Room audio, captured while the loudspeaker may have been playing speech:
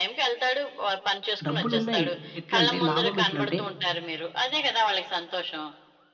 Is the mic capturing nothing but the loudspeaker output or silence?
No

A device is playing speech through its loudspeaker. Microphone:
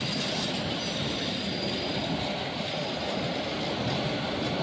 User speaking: No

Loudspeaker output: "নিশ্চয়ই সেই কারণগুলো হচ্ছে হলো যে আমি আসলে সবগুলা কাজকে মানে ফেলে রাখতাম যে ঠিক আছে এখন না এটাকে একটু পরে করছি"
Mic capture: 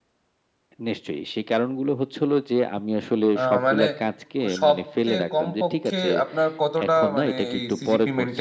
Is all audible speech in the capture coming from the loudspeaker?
No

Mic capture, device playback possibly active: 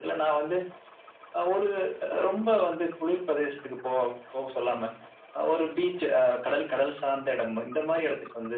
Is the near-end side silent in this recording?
Yes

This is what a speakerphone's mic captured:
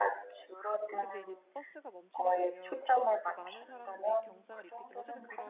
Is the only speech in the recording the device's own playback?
No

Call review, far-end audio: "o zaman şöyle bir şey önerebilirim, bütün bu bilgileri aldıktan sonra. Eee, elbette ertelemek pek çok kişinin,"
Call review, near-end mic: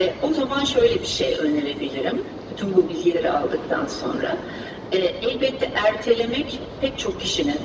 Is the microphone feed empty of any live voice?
Yes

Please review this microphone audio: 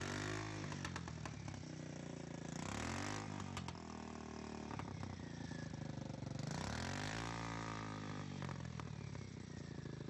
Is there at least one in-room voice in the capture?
No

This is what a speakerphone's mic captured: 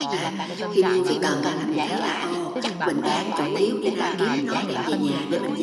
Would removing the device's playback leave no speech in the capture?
No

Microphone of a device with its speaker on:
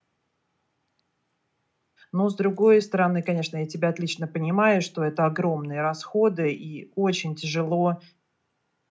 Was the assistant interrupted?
Yes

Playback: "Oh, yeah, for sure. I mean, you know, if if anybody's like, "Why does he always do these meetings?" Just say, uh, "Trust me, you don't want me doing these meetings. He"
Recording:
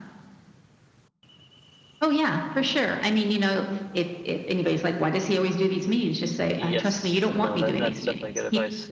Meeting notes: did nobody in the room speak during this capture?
No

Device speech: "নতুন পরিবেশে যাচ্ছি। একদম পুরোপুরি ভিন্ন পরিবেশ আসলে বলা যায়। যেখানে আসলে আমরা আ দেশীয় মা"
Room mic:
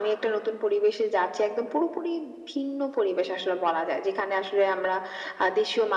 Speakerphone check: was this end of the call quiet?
Yes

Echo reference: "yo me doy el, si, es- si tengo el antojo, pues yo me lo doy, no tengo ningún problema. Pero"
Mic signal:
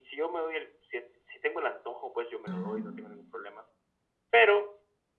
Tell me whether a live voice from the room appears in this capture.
Yes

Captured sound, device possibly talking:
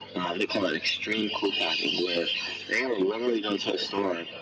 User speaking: No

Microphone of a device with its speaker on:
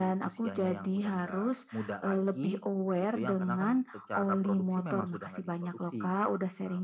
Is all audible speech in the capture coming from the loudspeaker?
Yes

